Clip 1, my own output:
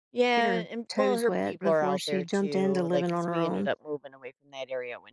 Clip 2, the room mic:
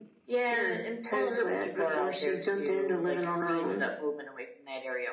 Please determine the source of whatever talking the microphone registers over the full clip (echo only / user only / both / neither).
echo only